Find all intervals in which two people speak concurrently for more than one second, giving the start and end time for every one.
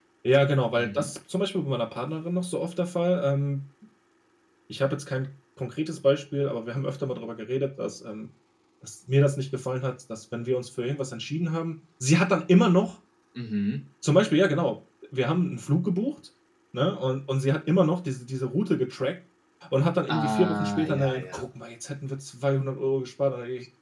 20.1-21.4

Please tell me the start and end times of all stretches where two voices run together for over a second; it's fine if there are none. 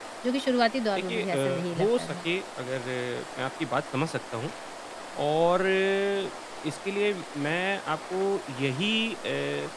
1.0-2.2

